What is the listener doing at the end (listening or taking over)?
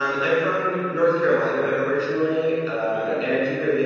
listening